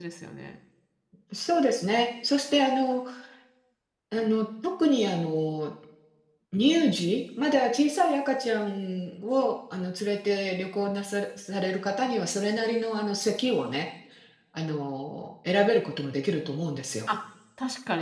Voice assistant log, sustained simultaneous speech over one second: none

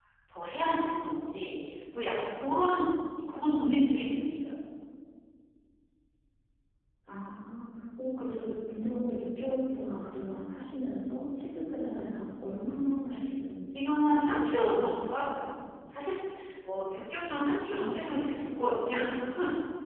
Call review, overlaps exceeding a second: present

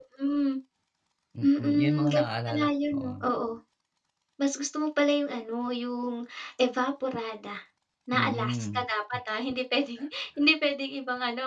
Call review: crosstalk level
present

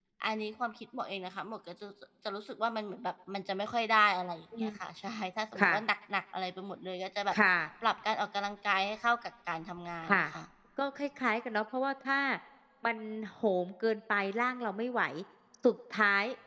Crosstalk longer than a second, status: none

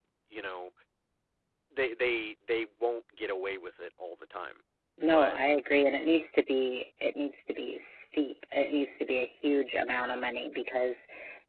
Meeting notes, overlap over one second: none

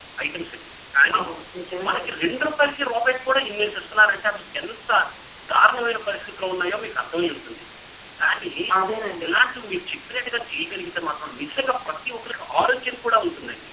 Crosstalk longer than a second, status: none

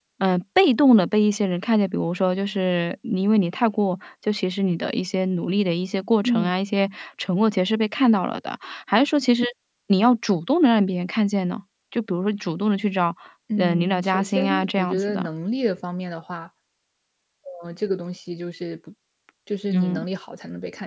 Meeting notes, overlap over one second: present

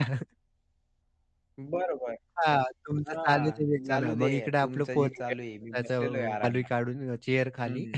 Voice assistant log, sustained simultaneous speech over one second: present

